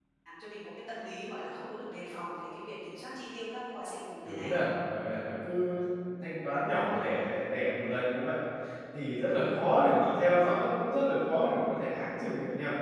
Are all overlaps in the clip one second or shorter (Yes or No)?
Yes